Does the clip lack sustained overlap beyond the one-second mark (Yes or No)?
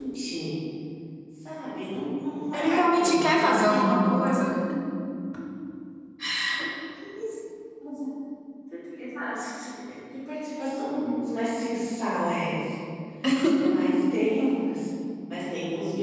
No